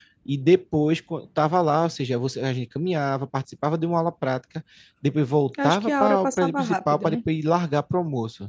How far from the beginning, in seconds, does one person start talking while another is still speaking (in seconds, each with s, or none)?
5.6 s